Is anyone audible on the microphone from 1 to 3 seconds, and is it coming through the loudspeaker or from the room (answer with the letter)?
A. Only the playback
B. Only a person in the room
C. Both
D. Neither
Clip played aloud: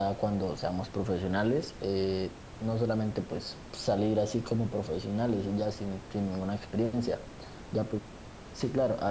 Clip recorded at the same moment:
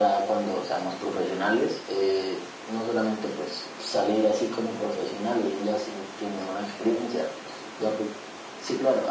A